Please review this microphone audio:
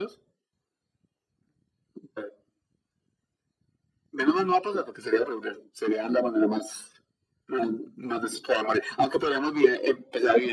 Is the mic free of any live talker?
Yes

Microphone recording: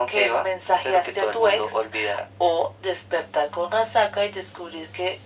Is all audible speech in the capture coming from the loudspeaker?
Yes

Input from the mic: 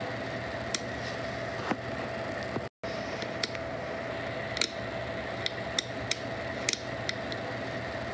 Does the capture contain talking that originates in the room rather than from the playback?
No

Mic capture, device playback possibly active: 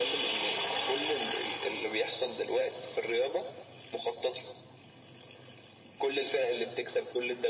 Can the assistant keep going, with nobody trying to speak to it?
Yes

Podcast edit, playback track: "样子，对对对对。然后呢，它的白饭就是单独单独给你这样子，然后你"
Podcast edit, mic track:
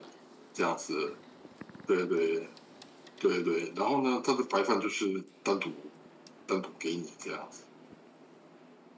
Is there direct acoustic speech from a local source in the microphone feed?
No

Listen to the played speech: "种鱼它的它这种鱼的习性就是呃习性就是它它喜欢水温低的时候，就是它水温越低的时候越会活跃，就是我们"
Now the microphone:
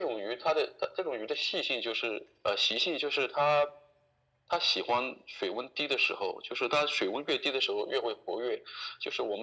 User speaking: No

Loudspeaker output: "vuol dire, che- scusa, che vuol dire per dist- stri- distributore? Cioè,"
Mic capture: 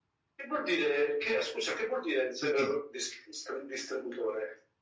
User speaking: Yes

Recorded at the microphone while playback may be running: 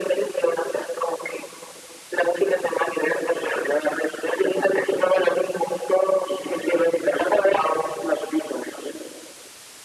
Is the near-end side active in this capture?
No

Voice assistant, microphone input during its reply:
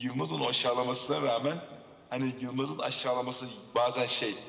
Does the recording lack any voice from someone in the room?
No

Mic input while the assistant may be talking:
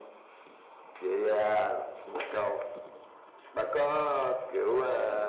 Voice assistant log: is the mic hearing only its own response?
Yes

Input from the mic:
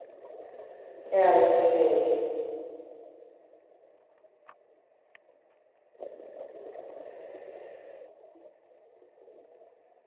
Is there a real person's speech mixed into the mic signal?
Yes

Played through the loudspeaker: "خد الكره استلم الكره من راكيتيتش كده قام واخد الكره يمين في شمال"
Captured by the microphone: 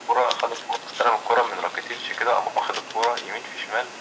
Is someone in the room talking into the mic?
No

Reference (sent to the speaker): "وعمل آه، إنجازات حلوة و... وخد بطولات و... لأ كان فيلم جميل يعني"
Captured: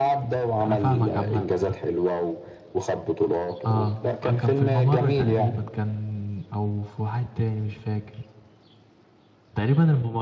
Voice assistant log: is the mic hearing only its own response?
No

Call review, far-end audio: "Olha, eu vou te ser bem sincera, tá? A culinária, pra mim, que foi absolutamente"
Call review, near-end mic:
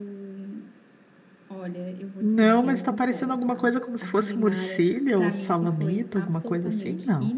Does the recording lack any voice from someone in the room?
No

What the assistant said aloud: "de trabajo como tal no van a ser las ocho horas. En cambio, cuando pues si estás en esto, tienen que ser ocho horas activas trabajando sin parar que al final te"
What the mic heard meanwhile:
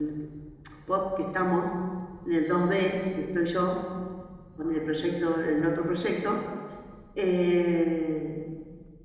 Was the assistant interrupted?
Yes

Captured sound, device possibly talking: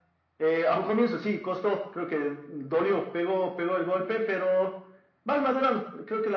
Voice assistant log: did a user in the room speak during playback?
No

